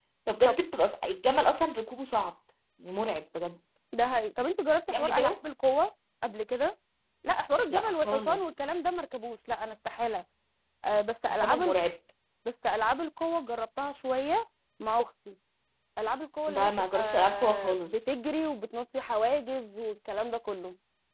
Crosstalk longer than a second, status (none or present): present